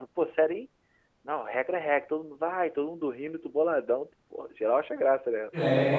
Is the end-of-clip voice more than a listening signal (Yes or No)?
Yes